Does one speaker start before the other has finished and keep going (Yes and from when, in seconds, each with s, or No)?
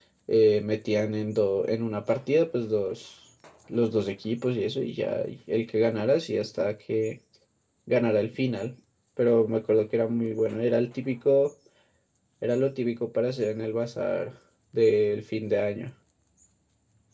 No